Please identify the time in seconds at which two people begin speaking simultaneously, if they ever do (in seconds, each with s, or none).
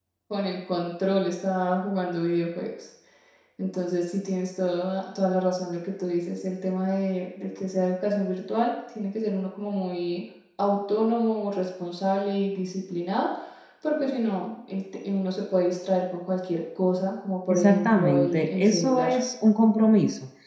17.5 s